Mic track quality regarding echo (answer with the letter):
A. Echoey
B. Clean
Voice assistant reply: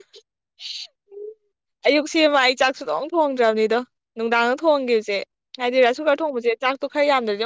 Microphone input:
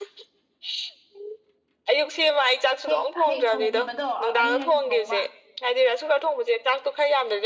A